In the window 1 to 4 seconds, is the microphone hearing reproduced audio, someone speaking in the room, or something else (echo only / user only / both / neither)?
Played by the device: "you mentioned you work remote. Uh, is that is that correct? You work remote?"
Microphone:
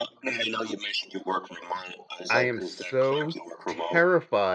both